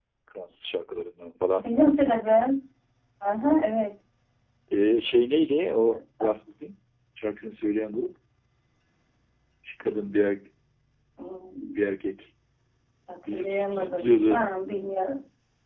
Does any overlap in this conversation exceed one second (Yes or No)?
Yes